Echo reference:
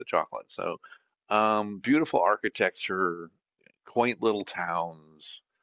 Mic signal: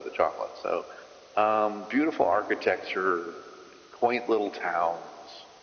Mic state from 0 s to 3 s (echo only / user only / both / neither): echo only